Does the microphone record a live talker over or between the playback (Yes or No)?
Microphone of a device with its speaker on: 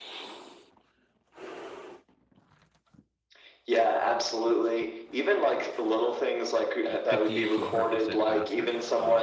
Yes